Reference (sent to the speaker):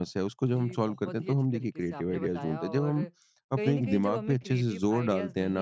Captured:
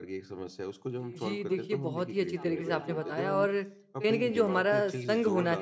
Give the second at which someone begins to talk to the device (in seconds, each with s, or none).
1.2 s